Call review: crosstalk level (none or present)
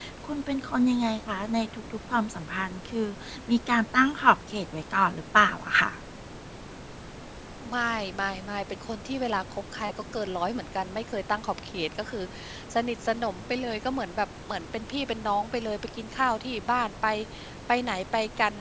none